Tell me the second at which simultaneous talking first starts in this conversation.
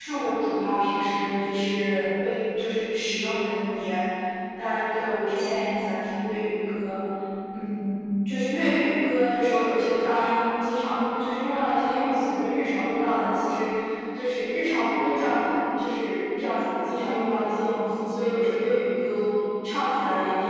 none

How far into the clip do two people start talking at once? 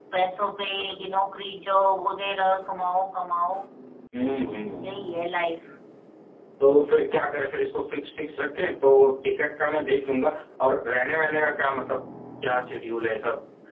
none

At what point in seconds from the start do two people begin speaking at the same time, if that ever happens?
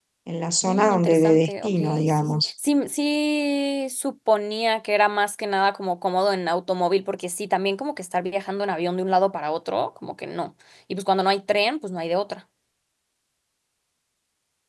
0.7 s

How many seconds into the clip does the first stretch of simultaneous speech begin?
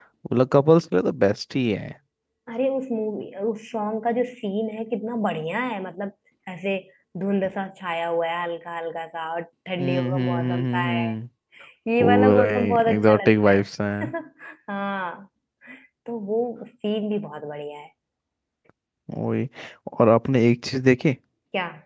9.8 s

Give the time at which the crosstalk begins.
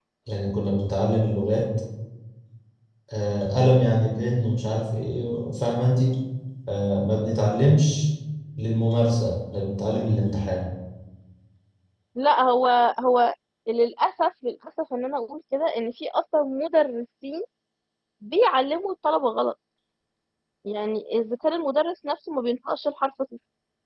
none

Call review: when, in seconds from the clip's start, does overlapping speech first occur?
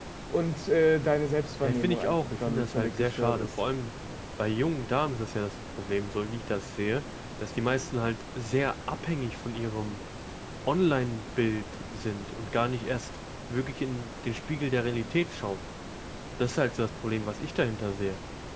1.6 s

